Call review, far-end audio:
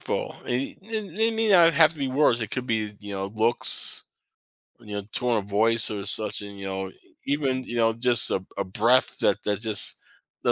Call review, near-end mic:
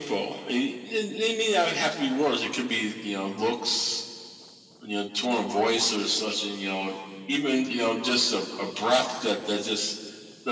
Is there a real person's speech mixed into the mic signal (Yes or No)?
No